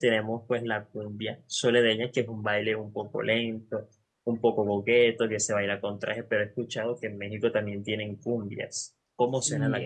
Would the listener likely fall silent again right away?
No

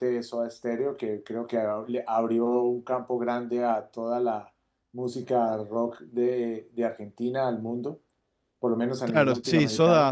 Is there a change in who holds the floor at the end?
Yes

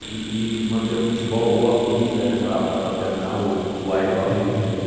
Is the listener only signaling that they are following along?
Yes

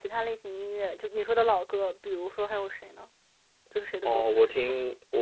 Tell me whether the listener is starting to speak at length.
Yes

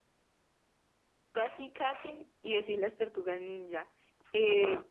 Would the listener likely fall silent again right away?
Yes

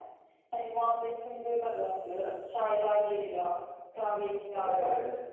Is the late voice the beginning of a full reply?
No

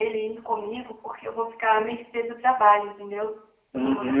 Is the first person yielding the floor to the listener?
Yes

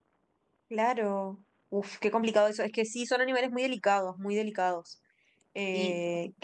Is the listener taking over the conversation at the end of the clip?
Yes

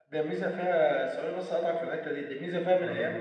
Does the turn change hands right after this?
No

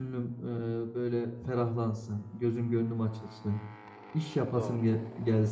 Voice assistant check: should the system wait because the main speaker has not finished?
Yes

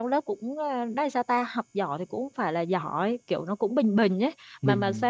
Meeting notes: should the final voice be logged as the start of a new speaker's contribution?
Yes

